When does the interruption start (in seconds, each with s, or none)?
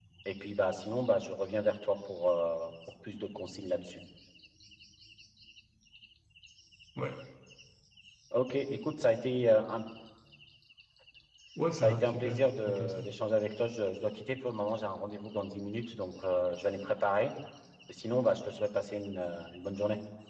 11.7 s